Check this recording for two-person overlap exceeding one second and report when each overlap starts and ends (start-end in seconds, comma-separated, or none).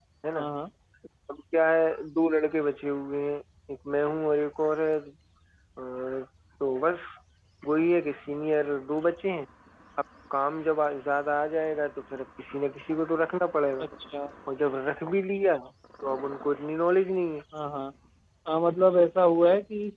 none